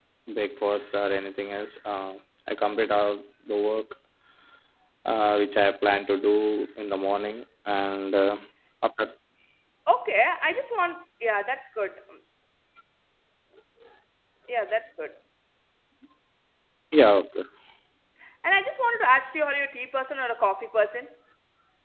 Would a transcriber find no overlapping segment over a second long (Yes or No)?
Yes